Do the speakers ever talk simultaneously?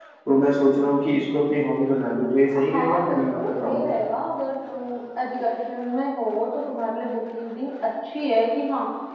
Yes, from 2.5 s

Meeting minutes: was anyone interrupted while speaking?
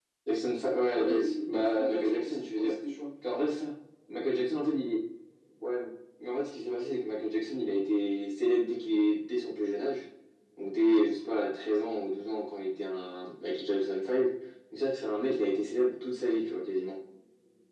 Yes, from 0.9 s

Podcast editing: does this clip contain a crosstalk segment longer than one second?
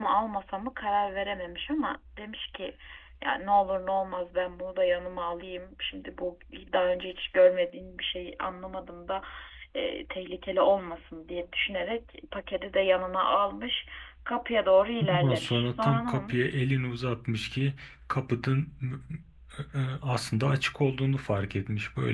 Yes, from 15.1 s

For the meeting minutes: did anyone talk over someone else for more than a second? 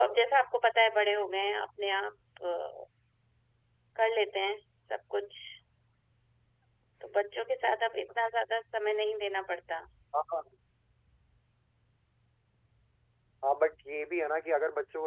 No

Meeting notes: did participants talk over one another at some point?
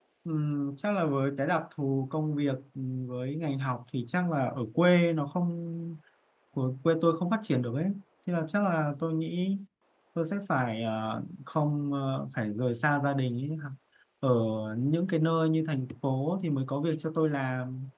No

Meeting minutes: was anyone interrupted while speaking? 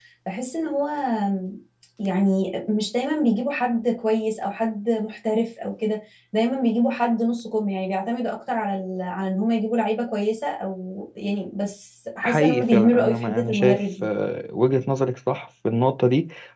Yes, from 12.2 s

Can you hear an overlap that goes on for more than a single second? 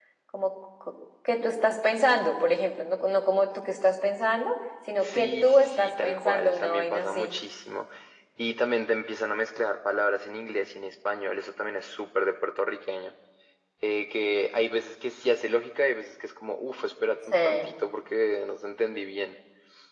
Yes, from 5.0 s

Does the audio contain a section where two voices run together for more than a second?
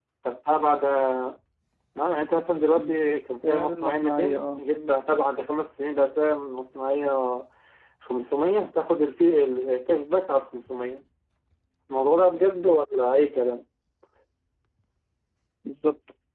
Yes, from 2.7 s

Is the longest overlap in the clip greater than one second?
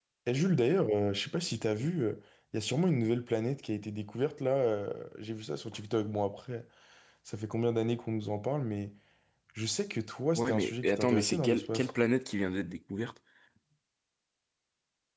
Yes, from 10.3 s

